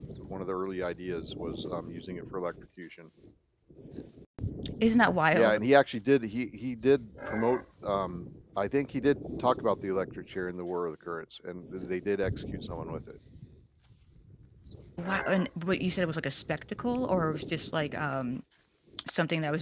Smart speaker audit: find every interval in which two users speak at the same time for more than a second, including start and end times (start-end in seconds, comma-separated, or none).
none